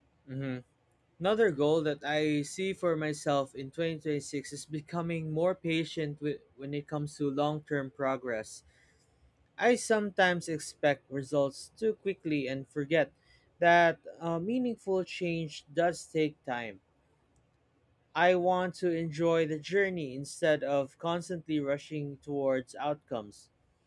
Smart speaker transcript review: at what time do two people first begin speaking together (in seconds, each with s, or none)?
none